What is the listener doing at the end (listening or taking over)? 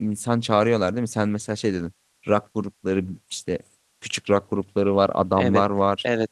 taking over